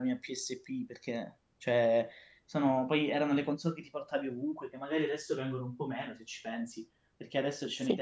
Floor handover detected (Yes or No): No